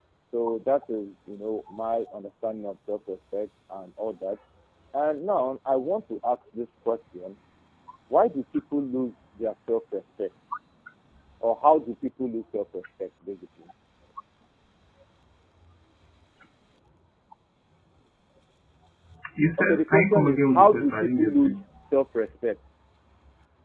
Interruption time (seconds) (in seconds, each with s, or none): 19.6 s